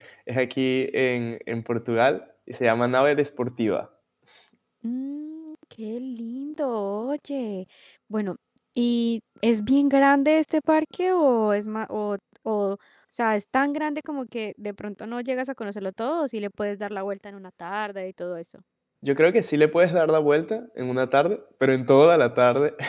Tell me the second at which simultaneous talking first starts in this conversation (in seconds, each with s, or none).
none